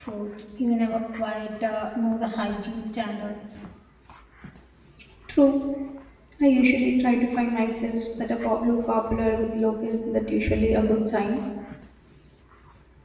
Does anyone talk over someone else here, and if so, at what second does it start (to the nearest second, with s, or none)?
none